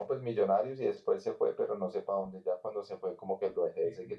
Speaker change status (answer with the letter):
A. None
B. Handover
A